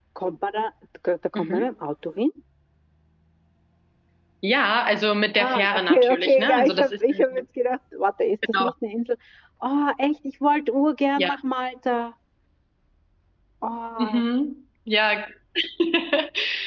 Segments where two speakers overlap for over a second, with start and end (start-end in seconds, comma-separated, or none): 5.4-7.2